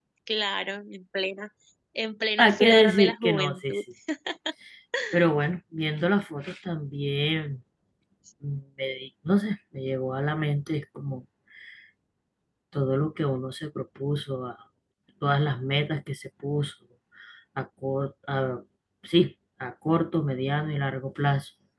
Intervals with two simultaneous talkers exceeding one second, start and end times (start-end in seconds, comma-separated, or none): 2.4-3.8